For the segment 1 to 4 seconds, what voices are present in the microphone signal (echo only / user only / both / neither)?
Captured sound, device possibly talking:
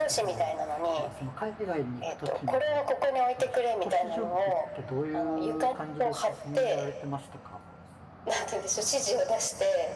both